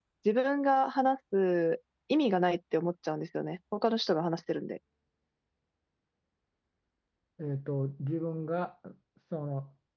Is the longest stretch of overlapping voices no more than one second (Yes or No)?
Yes